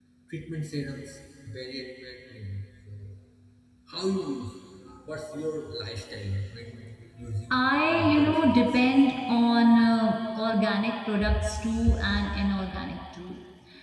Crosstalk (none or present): present